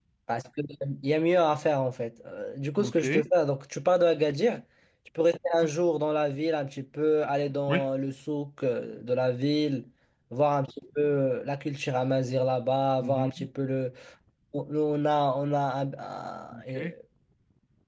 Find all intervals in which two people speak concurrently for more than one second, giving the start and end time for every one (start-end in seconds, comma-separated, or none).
none